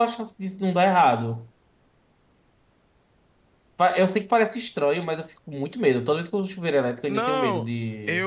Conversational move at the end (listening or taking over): taking over